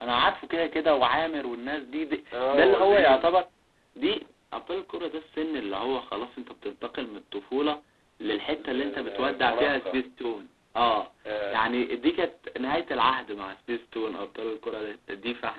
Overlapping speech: Yes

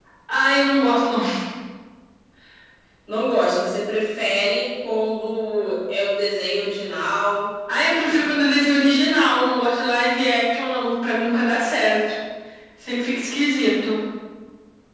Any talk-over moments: No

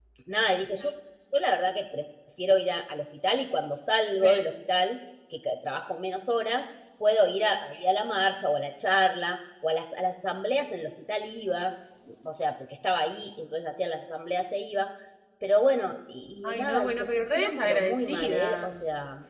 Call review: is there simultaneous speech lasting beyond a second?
Yes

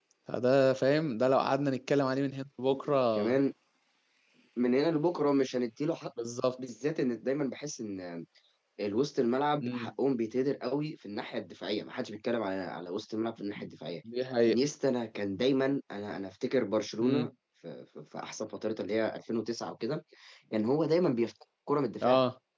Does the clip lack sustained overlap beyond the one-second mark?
Yes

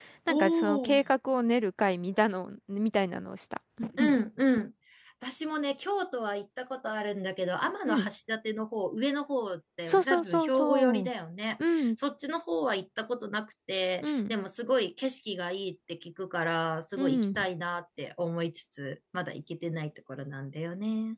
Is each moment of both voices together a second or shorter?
No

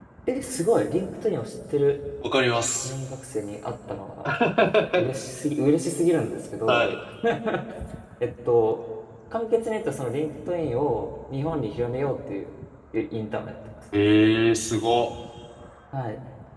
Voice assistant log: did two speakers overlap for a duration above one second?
No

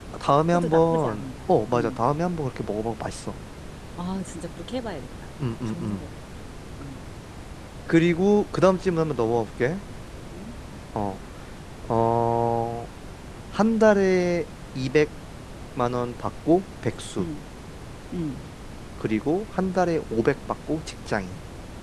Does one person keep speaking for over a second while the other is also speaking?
Yes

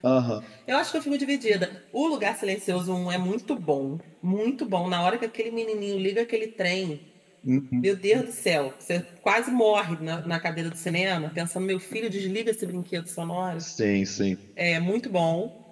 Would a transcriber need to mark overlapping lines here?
No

